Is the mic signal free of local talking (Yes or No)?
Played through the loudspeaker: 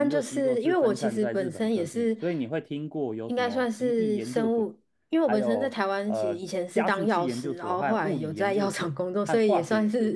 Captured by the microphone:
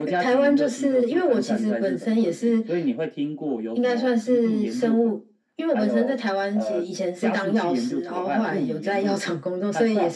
Yes